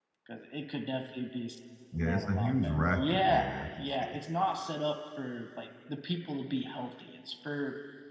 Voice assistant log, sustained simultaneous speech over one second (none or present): present